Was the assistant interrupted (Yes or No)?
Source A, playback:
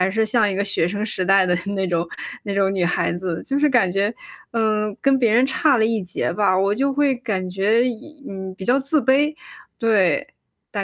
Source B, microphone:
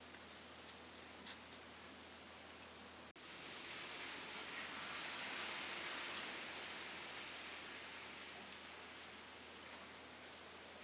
No